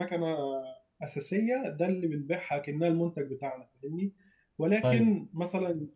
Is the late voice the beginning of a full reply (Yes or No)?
No